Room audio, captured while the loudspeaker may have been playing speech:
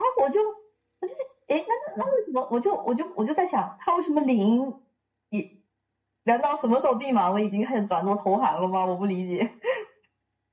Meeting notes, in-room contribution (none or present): none